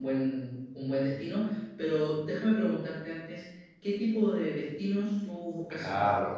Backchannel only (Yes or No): No